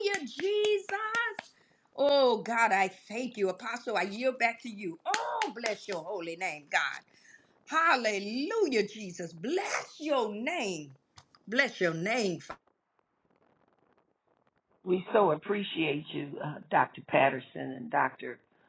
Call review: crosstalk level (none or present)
none